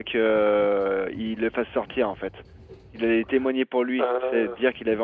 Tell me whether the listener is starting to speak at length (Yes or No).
No